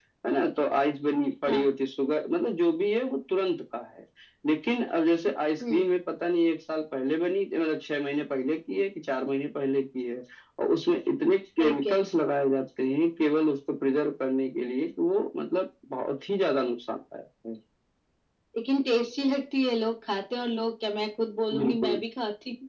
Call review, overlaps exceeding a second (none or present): none